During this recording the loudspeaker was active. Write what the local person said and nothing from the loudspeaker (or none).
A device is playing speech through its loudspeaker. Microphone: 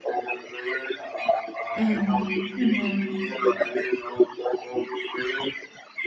Mhm. Mhm.